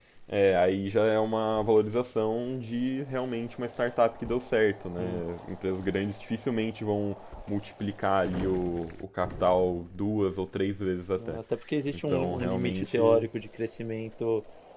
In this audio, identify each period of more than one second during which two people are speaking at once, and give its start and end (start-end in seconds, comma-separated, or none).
11.9-13.2